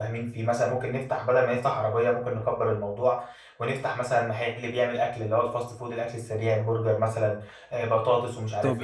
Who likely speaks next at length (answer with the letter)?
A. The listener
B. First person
A